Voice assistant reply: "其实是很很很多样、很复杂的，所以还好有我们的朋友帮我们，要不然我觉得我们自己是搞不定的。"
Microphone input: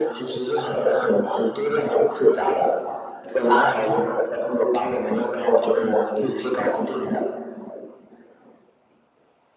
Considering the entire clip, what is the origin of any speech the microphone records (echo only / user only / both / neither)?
echo only